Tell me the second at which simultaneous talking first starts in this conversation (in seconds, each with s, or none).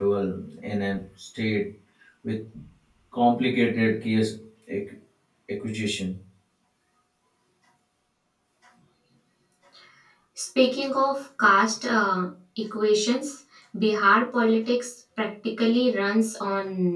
none